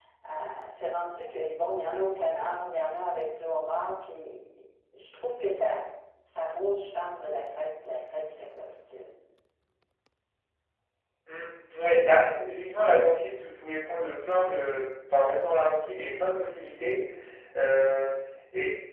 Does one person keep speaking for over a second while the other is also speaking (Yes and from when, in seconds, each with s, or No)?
No